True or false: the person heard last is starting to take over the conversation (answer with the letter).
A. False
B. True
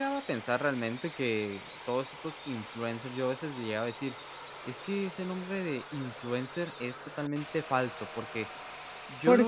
A